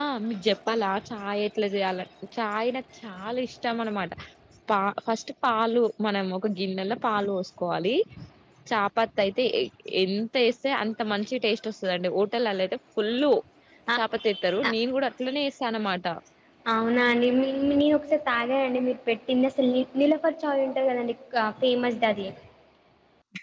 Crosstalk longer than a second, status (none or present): none